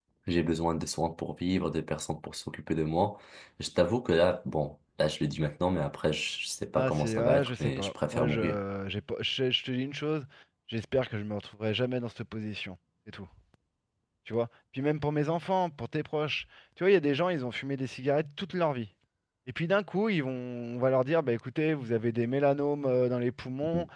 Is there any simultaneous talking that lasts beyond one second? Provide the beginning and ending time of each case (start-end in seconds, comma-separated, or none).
6.7-8.6